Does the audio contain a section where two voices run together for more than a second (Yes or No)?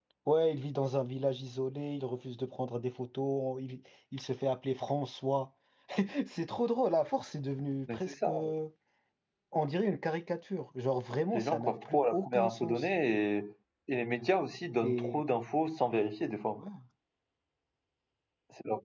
Yes